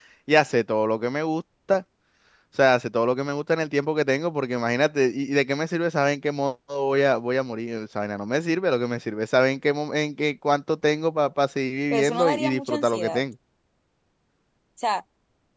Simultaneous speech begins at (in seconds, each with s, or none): 11.9 s